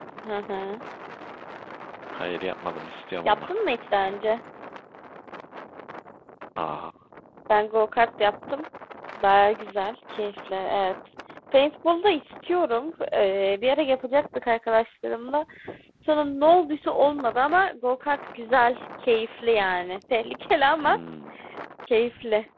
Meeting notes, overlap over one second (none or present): none